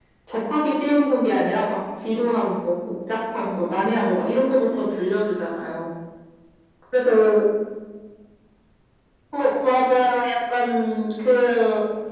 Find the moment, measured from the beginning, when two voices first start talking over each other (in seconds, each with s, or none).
none